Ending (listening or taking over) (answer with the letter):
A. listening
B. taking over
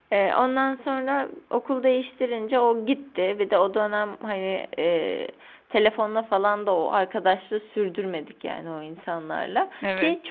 A